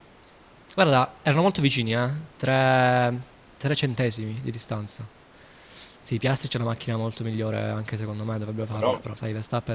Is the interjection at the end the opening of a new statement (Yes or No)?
No